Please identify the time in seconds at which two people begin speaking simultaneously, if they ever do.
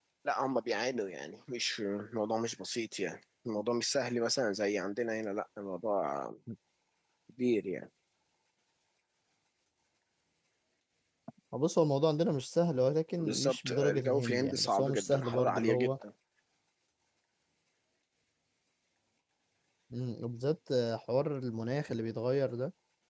13.2 s

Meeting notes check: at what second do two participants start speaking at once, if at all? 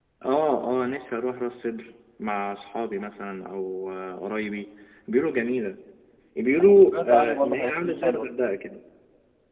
6.6 s

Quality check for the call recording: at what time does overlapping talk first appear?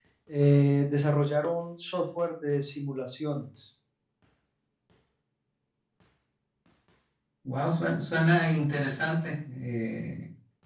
none

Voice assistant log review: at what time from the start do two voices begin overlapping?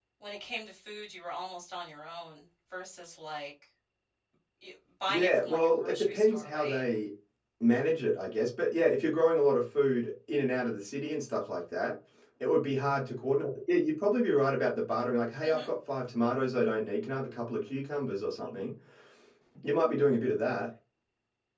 5.1 s

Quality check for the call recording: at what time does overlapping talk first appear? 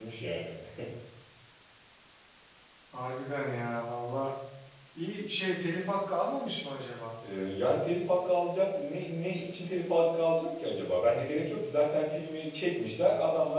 none

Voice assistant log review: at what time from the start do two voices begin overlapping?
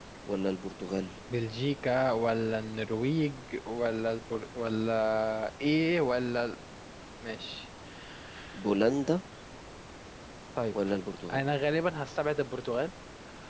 none

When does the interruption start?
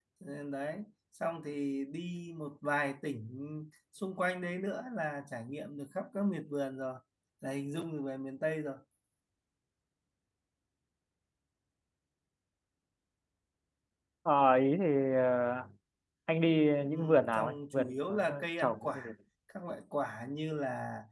16.9 s

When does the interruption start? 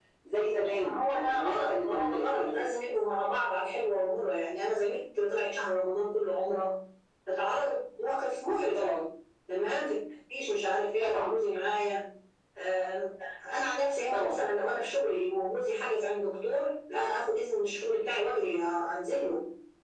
0.8 s

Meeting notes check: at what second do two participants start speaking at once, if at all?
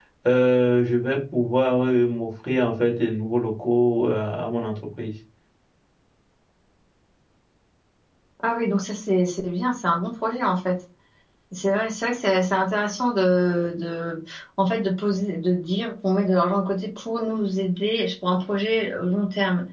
none

